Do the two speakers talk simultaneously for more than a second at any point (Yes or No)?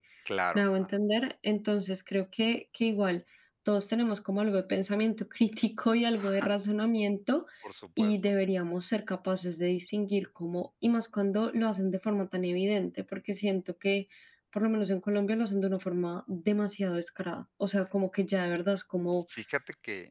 No